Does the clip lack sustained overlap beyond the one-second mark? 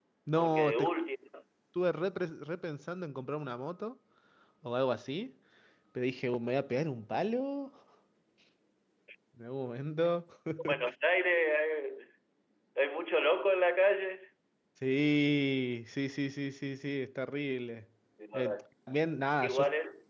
Yes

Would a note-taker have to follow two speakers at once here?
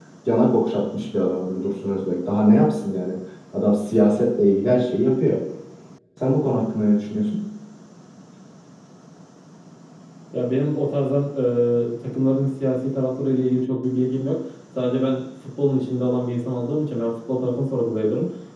No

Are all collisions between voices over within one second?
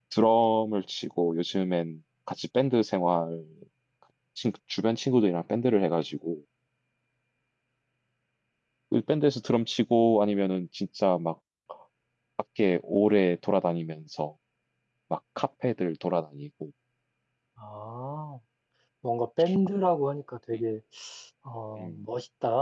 Yes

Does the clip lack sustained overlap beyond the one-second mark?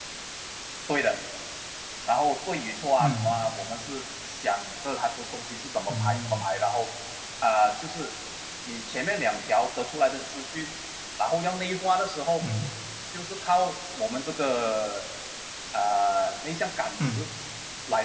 Yes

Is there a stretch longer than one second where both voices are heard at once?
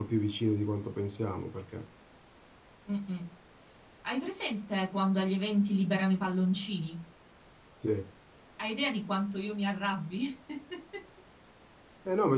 No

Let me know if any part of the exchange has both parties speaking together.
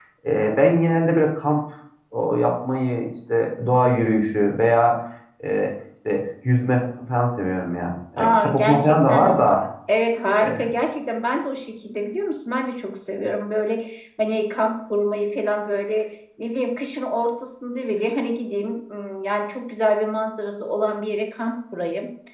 Yes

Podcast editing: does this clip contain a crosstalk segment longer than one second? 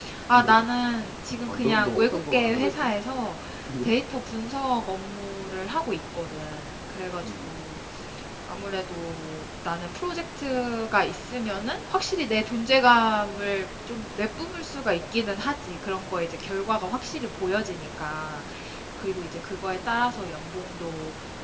Yes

